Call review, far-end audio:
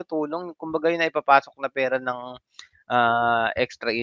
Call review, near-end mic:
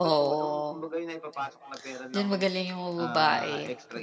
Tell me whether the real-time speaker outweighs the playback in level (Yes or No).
Yes